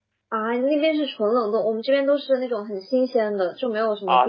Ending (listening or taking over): taking over